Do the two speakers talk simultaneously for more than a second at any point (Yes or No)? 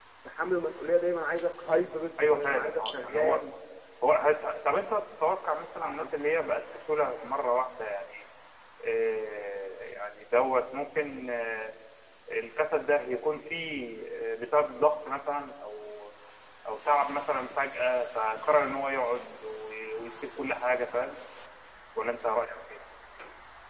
Yes